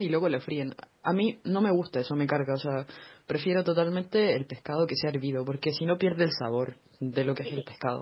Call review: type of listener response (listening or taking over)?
taking over